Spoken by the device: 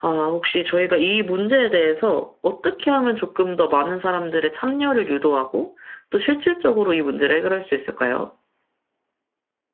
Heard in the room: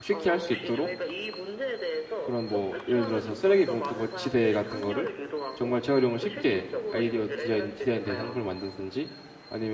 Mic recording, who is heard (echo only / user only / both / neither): both